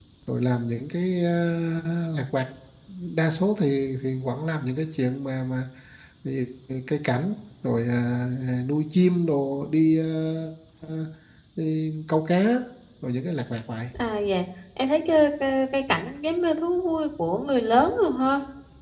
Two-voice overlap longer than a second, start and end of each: none

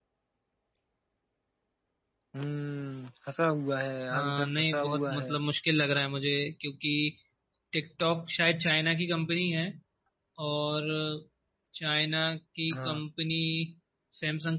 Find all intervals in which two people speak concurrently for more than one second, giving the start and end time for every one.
4.1-5.4

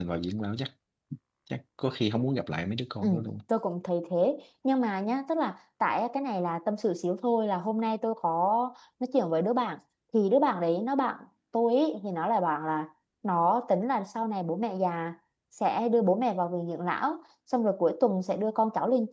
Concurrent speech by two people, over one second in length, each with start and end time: none

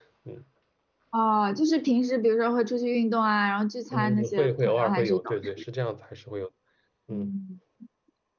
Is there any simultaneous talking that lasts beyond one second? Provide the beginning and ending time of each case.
3.9-5.3

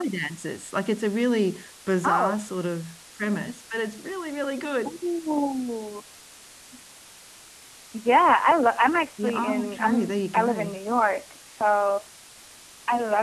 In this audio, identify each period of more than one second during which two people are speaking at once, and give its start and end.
9.2-10.7

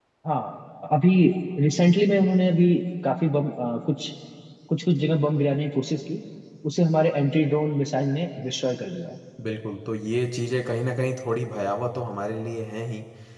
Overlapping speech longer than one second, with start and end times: none

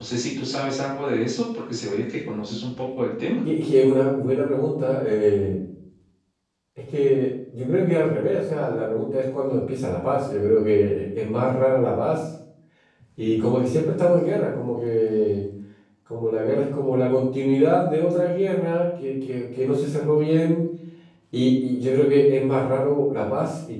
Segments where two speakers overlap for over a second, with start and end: none

